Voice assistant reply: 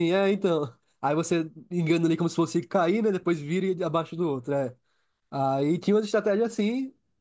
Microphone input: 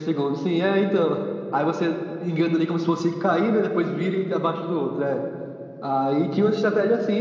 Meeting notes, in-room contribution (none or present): none